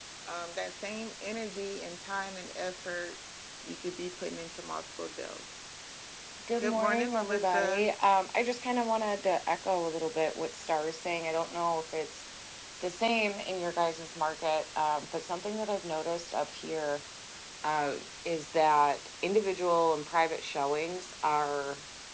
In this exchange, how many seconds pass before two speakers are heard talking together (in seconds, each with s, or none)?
6.6 s